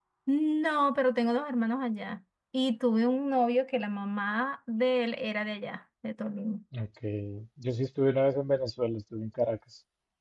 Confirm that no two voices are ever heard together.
Yes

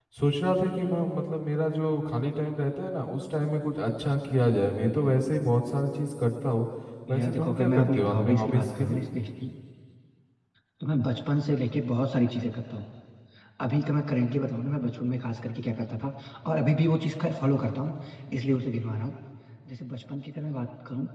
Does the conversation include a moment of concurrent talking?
Yes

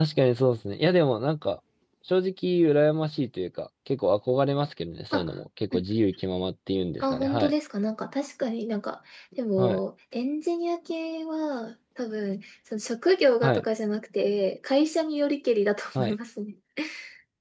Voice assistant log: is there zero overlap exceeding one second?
Yes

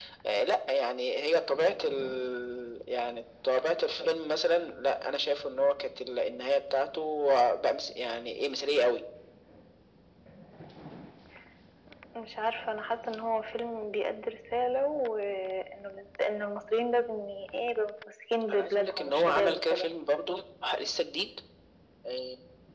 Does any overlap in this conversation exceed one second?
Yes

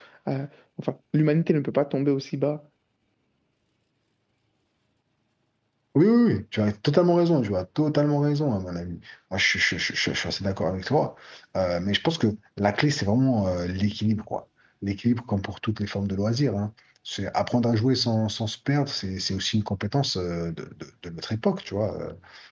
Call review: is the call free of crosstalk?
Yes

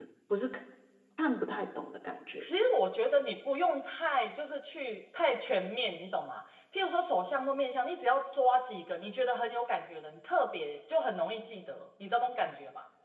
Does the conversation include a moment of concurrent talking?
No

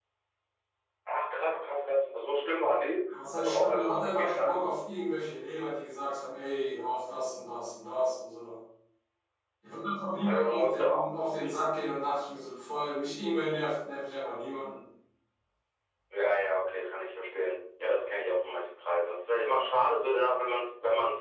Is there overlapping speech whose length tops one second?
Yes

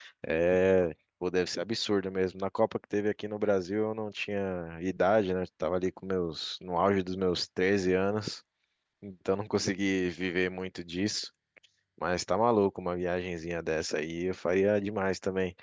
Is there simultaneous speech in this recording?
No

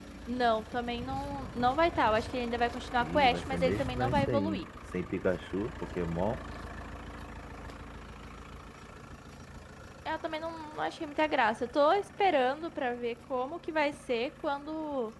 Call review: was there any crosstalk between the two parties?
Yes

